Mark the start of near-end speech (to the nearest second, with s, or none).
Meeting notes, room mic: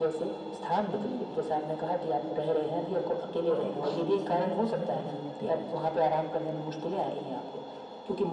4 s